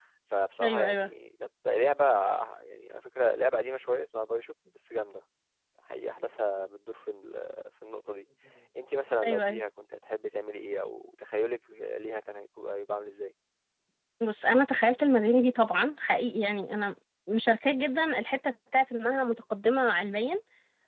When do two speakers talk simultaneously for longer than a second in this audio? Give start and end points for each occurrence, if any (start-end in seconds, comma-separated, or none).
none